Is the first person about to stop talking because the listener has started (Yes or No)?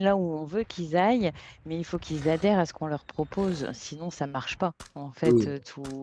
No